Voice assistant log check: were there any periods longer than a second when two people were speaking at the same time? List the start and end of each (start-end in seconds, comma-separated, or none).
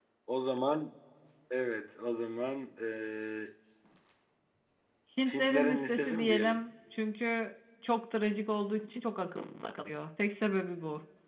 5.3-6.6